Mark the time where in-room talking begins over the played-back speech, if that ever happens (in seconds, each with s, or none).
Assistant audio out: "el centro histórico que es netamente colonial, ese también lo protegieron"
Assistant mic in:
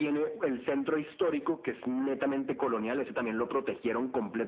none